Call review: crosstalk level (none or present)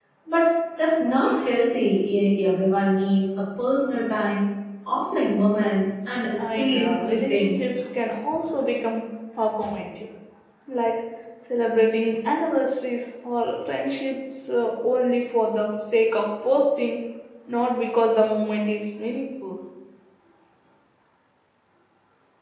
present